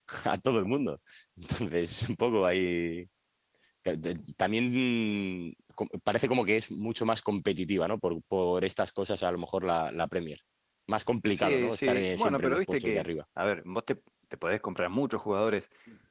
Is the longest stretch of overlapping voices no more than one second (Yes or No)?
No